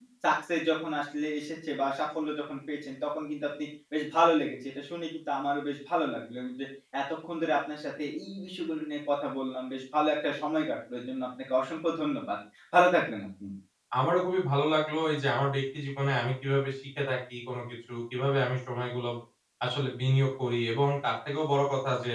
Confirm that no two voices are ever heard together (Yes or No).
Yes